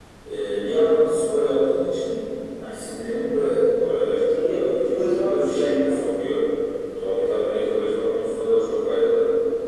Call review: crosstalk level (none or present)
present